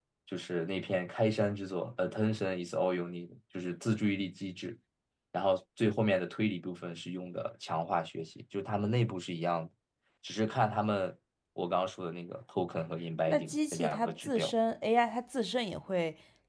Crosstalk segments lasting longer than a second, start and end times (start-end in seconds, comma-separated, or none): 13.3-14.5